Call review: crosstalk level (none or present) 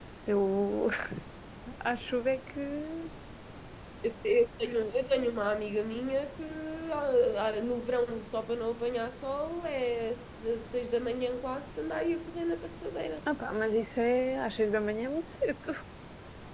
none